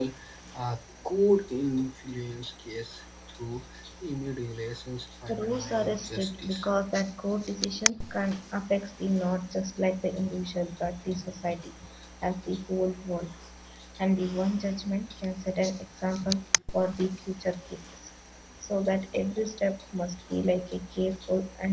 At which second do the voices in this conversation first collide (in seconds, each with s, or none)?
5.3 s